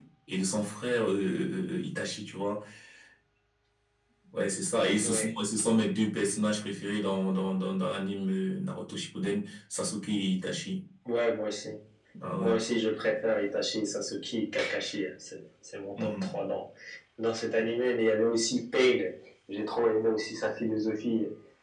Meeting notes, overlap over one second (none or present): none